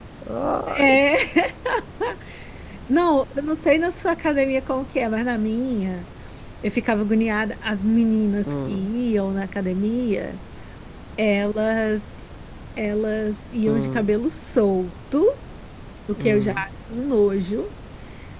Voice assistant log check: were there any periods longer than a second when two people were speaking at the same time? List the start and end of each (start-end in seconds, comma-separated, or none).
none